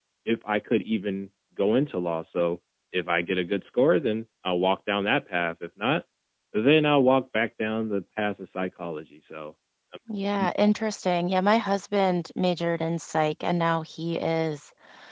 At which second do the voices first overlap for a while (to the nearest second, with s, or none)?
none